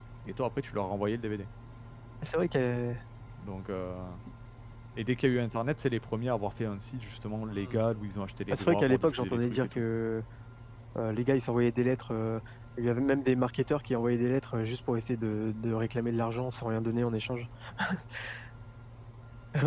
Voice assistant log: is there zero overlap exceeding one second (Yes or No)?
No